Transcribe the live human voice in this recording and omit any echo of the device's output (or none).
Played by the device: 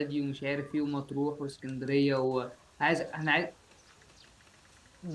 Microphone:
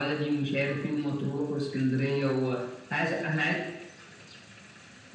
none